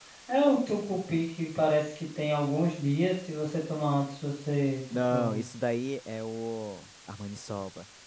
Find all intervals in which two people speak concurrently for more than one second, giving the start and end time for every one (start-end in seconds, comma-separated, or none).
none